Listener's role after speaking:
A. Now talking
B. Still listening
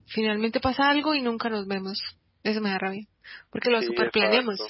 A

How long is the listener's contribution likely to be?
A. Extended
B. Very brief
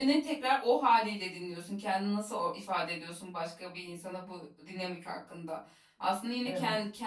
B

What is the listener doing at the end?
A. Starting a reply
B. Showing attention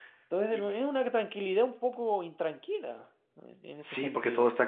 A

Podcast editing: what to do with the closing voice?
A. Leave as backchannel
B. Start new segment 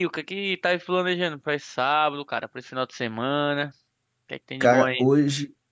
B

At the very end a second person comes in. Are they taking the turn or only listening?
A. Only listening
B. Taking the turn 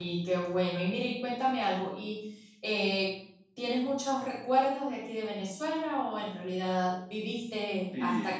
B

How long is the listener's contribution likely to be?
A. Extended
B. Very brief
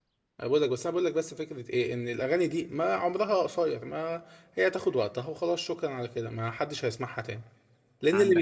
B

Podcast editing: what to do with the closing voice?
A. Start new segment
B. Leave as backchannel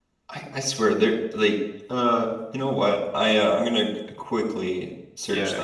A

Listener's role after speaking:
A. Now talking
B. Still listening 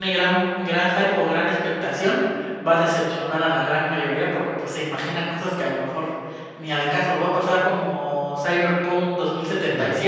B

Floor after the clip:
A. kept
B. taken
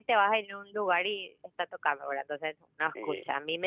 A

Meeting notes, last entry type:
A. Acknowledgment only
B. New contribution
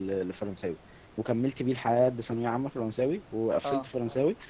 A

